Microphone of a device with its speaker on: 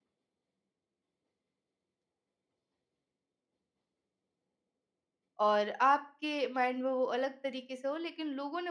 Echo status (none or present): none